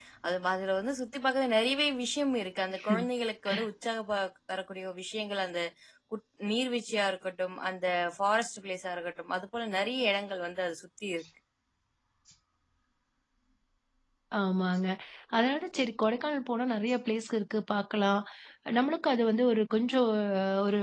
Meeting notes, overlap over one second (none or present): none